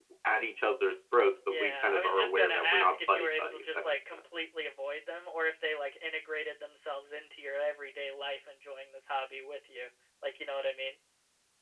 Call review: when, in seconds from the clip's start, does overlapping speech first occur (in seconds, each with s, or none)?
1.5 s